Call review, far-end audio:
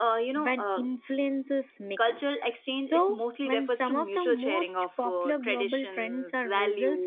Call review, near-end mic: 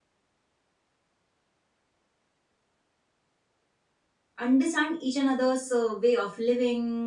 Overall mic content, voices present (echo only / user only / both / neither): user only